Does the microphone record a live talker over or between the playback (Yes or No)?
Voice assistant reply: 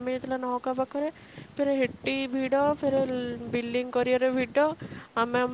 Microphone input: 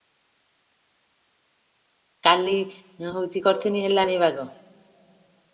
Yes